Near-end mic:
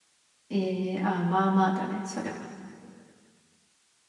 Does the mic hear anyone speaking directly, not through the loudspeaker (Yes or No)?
Yes